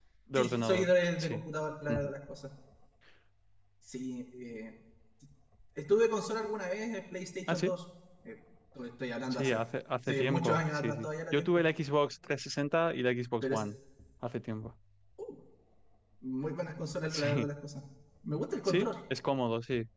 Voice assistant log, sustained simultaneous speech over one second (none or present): present